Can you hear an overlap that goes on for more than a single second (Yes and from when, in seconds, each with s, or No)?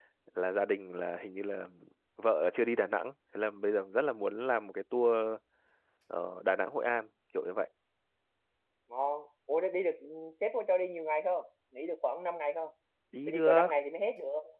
No